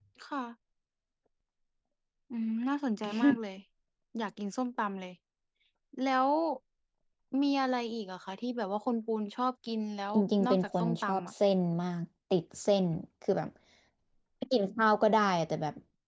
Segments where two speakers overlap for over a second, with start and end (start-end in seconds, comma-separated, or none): 10.1-11.3